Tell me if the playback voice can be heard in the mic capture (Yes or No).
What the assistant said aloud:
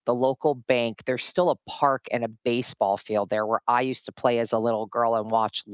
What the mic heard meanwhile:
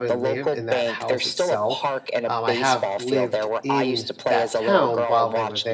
Yes